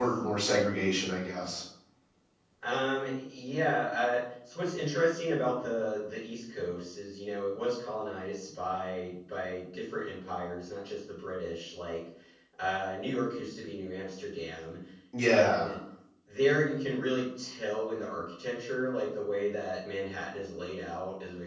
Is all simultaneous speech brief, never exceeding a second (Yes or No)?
Yes